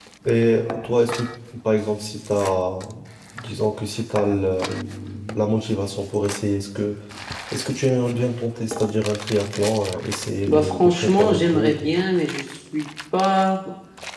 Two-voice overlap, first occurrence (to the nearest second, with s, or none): 10 s